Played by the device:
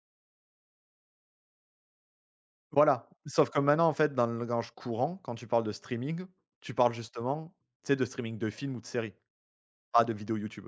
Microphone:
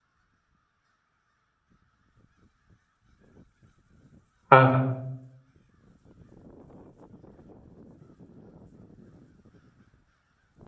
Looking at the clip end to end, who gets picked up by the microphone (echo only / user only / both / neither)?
user only